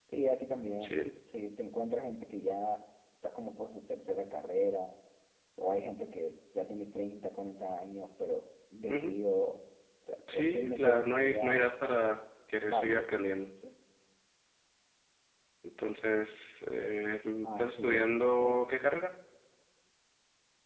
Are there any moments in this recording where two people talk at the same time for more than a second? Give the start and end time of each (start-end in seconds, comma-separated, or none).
10.3-11.7, 17.4-19.0